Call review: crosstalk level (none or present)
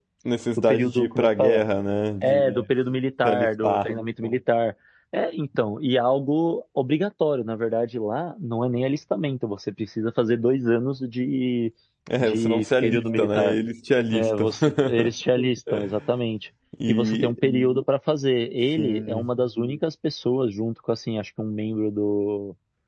present